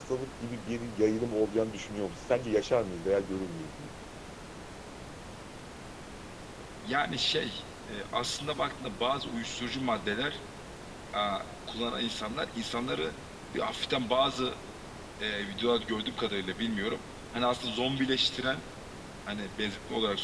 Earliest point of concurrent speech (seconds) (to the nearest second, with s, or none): none